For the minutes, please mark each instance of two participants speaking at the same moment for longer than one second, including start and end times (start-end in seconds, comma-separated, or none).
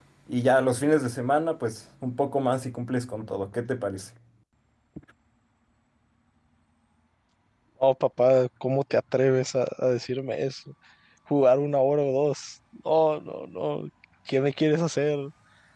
none